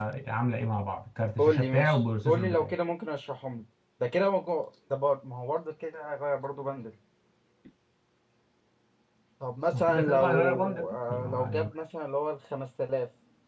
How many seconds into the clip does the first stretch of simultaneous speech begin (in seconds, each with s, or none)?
1.4 s